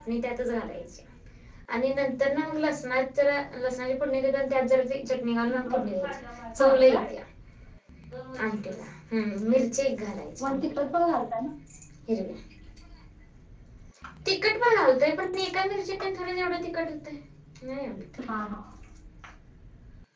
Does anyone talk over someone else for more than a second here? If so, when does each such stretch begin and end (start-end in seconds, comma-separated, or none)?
none